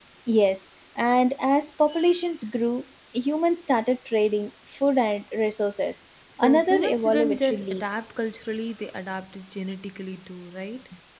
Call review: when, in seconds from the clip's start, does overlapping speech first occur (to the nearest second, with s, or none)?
6 s